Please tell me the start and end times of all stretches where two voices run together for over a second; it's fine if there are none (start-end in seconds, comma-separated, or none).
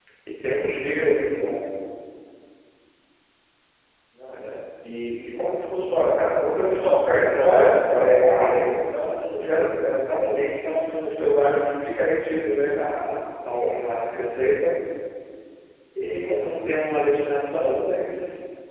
7.4-8.7